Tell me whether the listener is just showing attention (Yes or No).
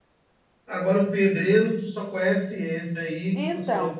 No